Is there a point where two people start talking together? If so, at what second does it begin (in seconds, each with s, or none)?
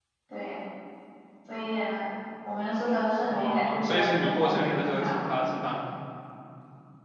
3.3 s